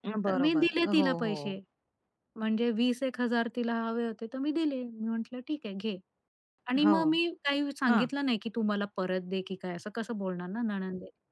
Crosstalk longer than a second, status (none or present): present